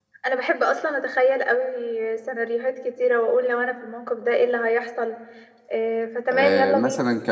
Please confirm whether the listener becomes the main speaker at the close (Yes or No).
Yes